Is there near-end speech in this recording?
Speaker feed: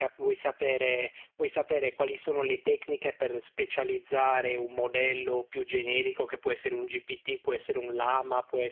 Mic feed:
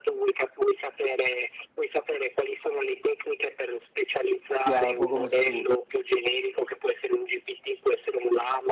Yes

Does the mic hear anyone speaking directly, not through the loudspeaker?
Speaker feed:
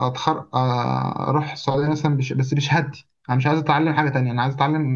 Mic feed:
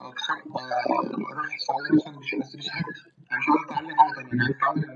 No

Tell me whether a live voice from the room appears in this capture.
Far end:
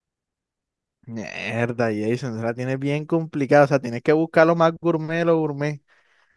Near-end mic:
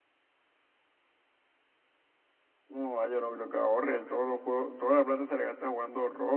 Yes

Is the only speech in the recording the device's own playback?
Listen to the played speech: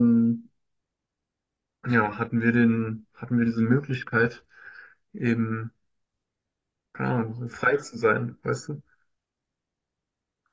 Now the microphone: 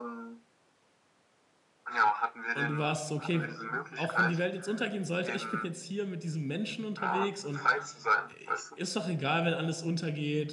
No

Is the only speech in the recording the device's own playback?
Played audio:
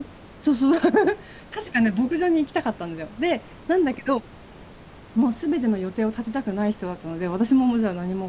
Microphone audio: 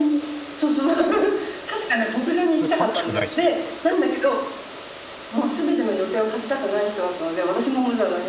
No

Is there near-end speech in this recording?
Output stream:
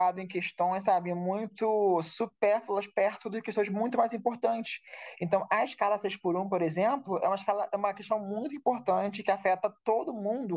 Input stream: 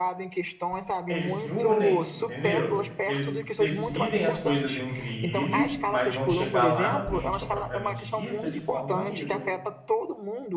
Yes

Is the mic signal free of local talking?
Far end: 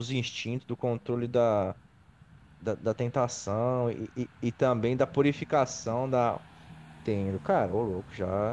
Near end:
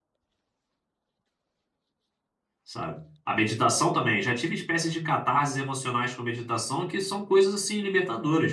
No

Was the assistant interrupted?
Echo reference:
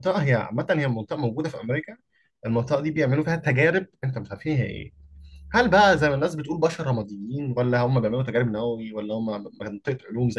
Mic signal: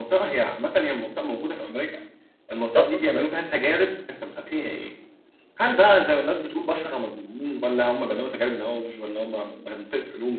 Yes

